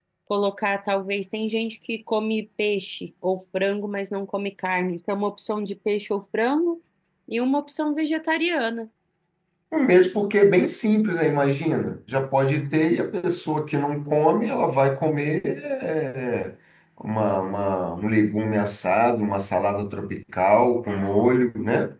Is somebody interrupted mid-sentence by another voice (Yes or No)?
No